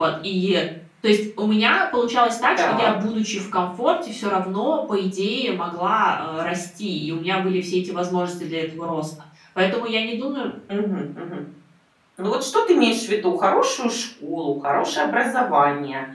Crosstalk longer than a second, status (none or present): none